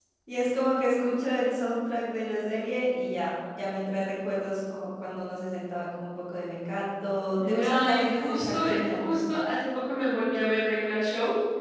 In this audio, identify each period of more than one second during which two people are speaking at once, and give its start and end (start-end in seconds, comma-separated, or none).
7.5-9.2